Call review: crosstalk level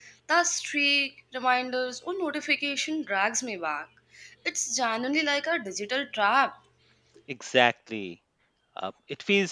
none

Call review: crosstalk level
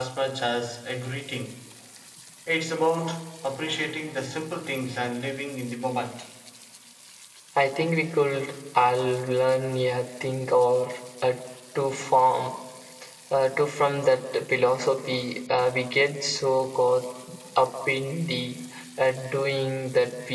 none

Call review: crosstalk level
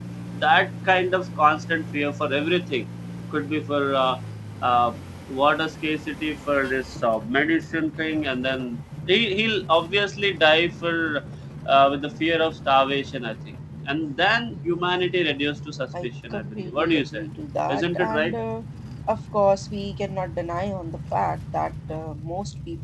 present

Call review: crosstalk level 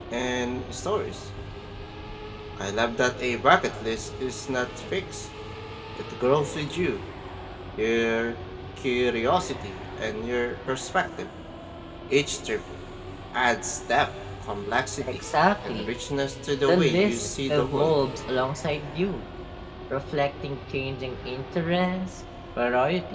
present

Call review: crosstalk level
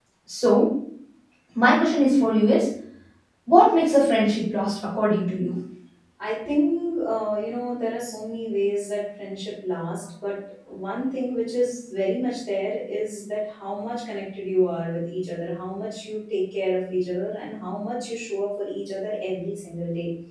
none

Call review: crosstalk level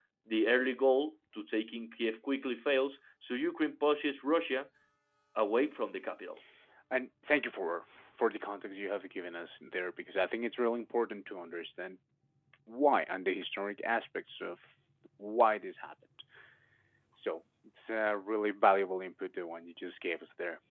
none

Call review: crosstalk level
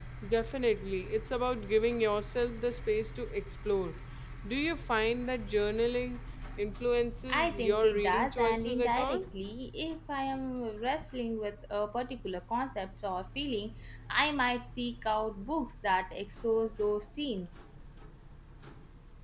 present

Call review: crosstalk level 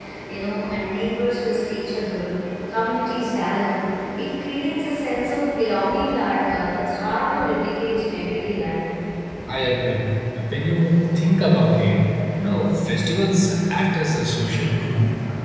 none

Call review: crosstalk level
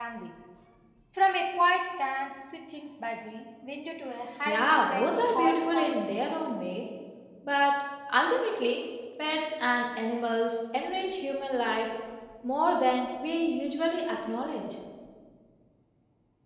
present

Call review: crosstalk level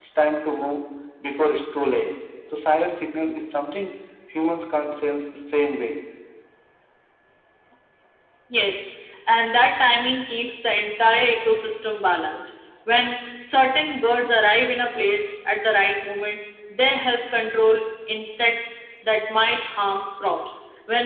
none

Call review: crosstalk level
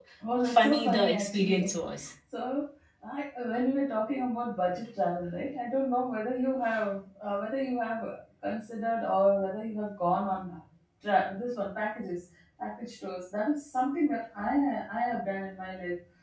present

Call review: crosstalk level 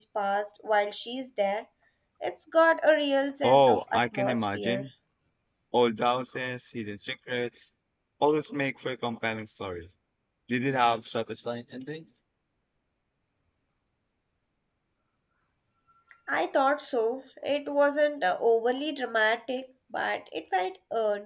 present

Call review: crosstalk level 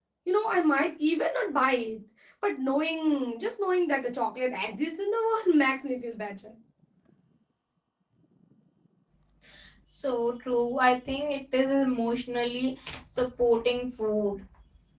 none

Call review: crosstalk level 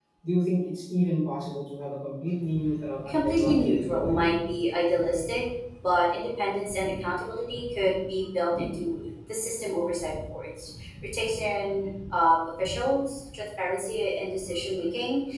present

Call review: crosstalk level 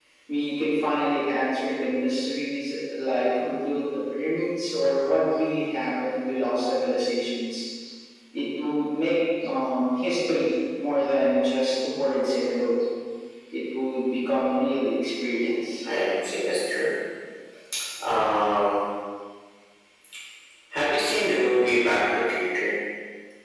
none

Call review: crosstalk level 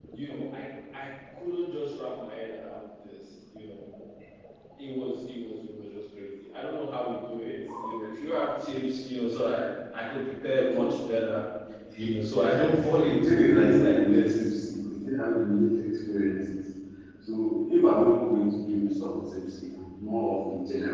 present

